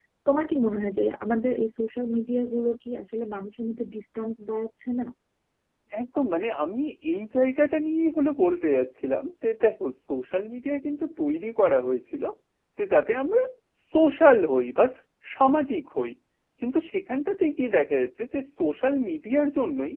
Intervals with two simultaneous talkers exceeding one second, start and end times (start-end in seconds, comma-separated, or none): none